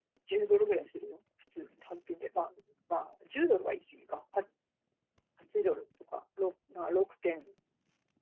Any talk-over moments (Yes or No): No